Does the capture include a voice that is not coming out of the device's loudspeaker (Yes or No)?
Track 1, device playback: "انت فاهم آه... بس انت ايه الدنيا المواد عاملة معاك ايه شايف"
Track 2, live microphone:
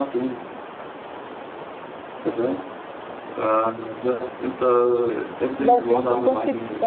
Yes